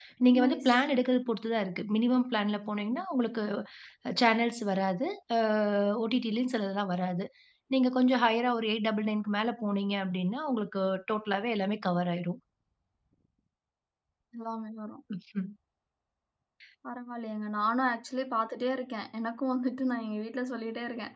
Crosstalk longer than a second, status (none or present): none